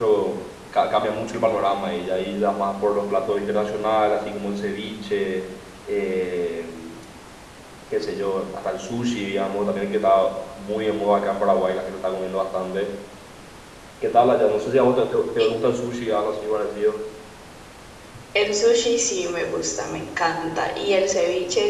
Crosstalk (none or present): none